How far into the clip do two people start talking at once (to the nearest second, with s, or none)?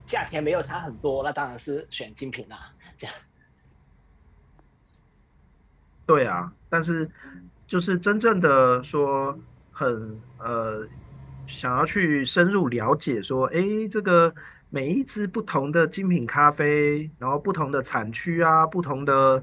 none